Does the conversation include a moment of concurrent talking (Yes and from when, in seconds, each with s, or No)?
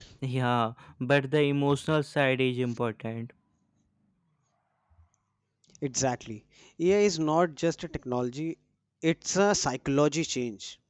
No